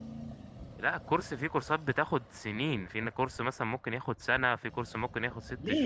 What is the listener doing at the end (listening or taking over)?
taking over